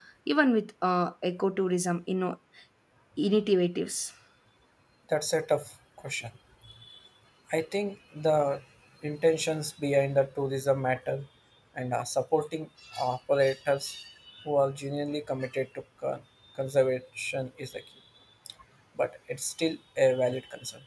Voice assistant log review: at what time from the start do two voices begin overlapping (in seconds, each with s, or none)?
none